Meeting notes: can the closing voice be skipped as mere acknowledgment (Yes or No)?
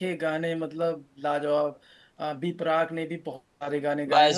No